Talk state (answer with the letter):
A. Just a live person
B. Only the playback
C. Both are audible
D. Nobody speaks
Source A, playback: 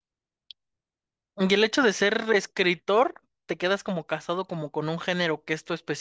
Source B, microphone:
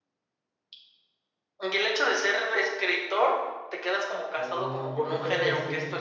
C